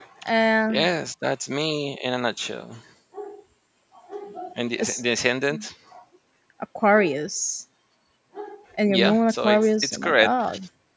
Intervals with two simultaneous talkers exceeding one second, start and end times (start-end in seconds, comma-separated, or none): 8.9-10.3